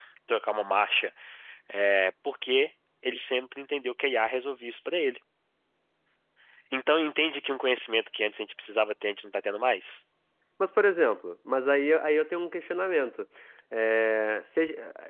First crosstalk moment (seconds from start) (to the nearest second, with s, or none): none